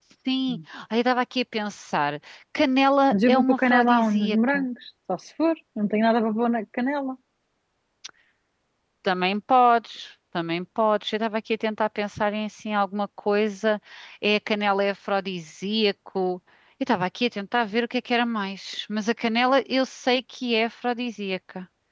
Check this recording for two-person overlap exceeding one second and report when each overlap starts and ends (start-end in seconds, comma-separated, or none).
3.1-4.7